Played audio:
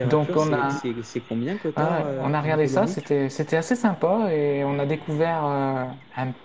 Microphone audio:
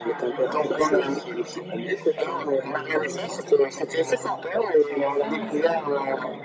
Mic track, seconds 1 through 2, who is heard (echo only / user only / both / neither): both